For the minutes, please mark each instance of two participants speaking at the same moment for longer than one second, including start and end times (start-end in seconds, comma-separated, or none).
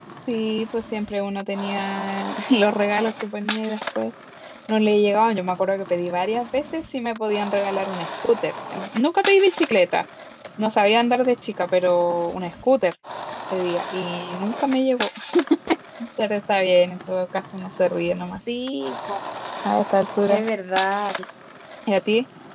none